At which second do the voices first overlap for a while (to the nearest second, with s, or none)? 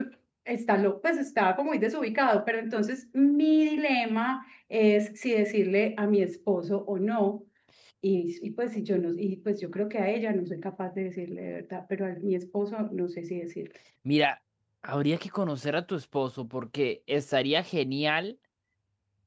none